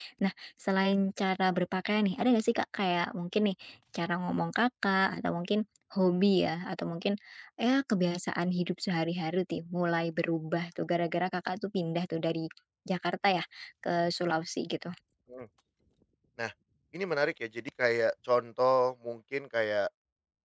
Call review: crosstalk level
none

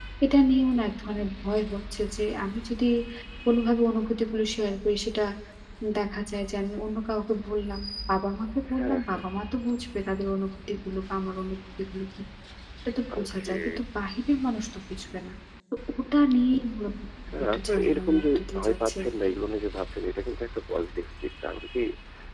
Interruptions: present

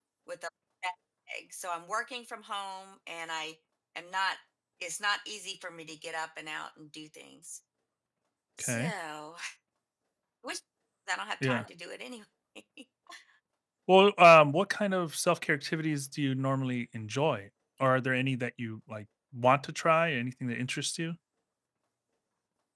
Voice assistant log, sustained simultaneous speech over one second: none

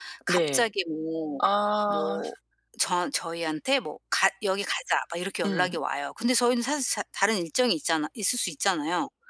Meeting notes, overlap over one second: none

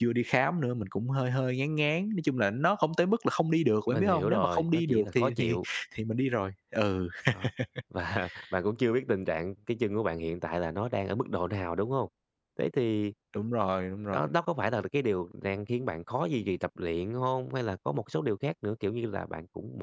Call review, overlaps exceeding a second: present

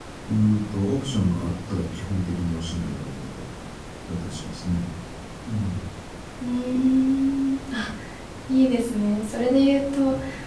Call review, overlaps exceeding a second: none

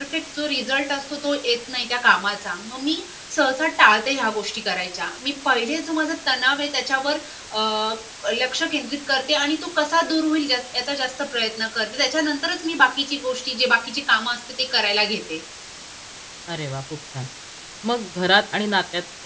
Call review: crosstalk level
none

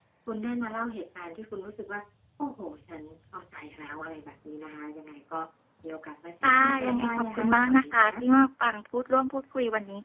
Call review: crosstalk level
present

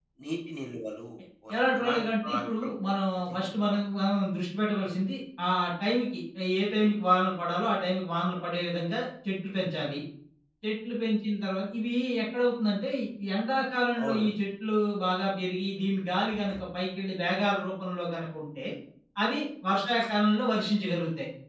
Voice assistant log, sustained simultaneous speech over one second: present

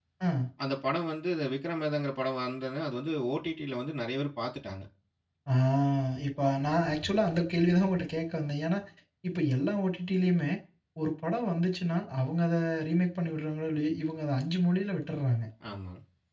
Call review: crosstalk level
none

